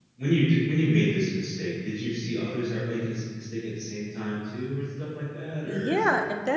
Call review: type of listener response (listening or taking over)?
taking over